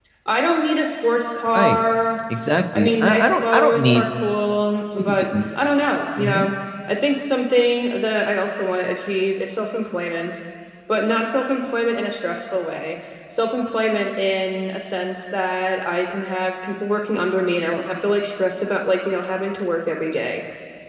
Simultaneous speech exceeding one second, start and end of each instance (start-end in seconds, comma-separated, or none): 2.7-4.0